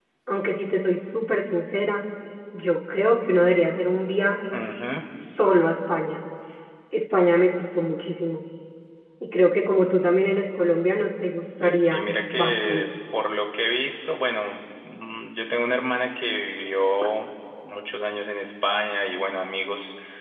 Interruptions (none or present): present